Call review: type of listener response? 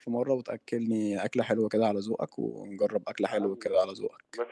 taking over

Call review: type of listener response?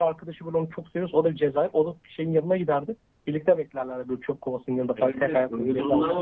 taking over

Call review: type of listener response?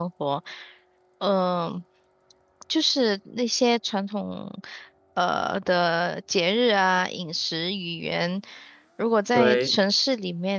listening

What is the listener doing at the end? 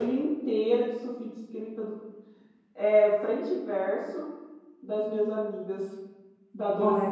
taking over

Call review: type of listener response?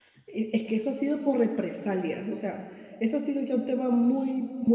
listening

